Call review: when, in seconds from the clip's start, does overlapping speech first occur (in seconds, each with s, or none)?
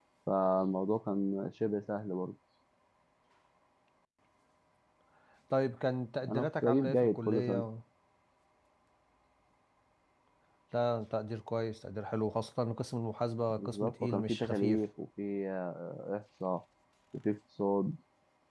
6.3 s